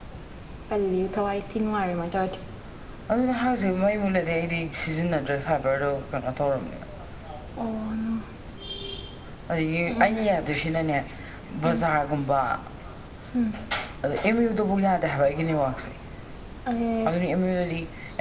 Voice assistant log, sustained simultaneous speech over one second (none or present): none